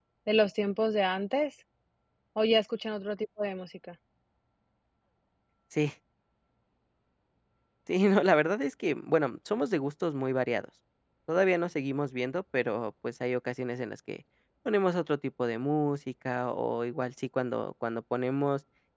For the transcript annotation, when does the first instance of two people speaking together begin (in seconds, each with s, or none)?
none